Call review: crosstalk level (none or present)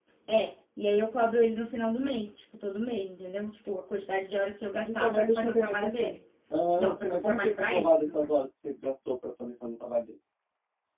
present